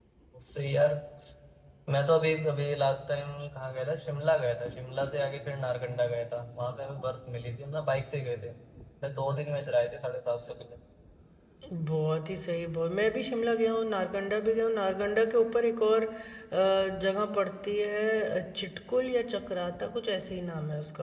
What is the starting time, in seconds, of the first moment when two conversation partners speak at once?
none

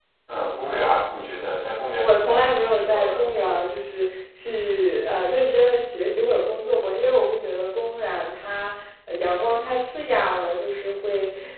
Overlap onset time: 2.0 s

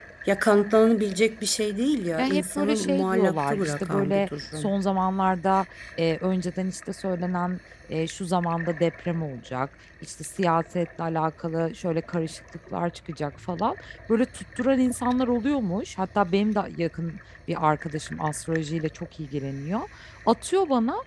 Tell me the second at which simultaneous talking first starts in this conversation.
2.2 s

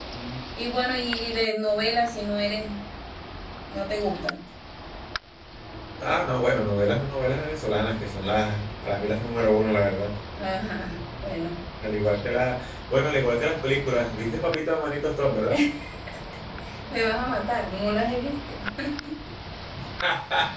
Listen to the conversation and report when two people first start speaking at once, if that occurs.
none

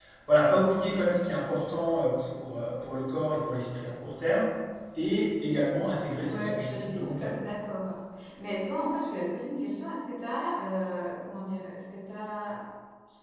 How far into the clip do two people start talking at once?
5.9 s

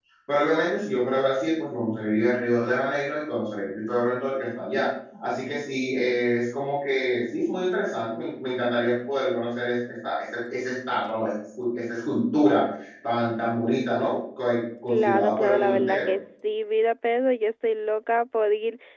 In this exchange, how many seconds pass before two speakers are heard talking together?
14.9 s

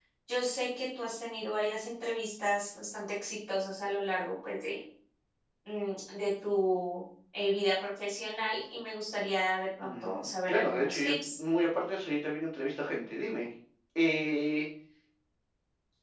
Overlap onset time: 9.8 s

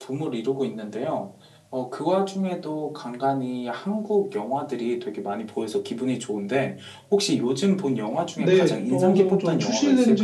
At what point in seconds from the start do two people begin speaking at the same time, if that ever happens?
8.4 s

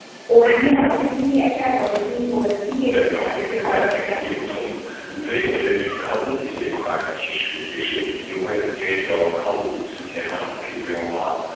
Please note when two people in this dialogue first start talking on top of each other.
2.9 s

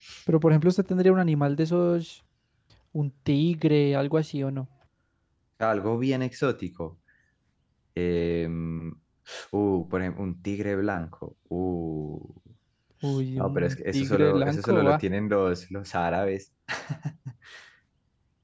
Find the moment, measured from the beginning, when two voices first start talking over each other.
13.4 s

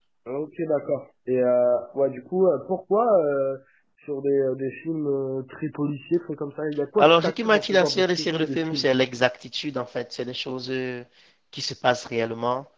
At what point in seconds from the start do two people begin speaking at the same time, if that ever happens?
7.0 s

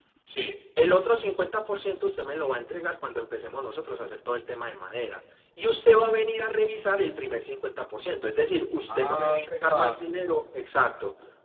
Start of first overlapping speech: 8.9 s

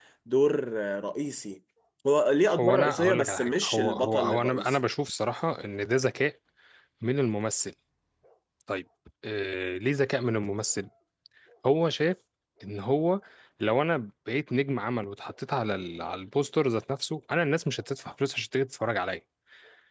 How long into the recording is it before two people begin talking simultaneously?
2.5 s

